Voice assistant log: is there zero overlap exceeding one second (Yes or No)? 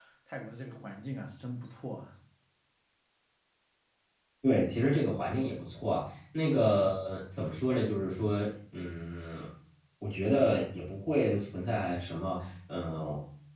Yes